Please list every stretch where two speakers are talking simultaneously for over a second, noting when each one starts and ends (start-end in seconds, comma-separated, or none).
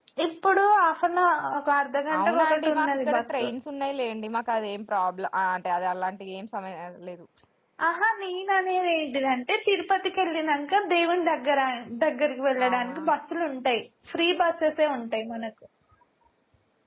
2.2-3.5